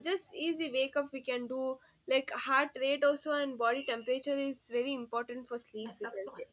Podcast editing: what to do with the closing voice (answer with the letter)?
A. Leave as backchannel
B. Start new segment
B